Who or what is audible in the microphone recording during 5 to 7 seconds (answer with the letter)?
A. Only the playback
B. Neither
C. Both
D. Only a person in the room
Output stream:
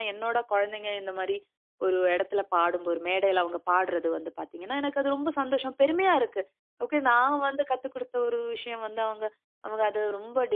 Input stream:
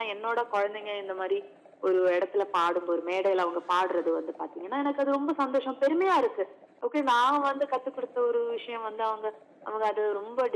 A